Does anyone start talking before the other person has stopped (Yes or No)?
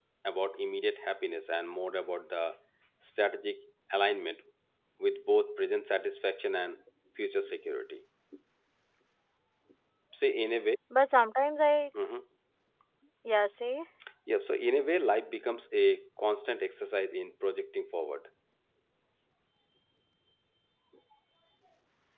No